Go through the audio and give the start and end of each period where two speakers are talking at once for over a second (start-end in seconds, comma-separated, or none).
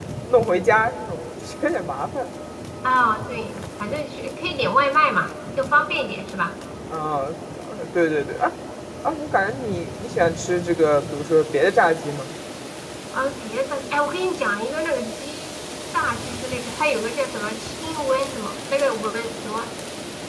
none